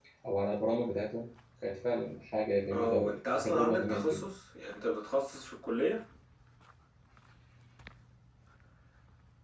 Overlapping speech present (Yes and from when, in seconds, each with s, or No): Yes, from 2.7 s